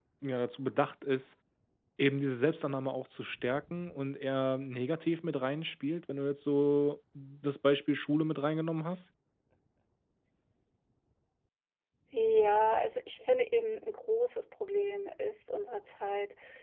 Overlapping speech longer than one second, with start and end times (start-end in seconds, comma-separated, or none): none